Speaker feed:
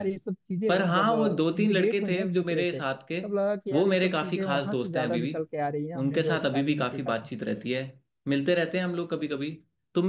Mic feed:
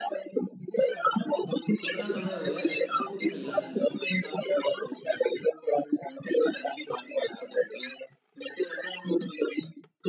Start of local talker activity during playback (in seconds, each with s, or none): 1.8 s